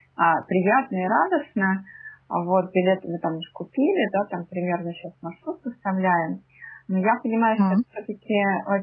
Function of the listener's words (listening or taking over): listening